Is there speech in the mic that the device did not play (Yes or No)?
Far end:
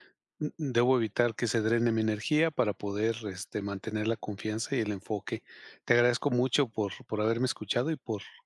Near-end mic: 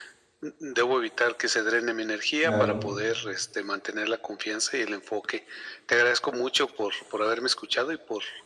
Yes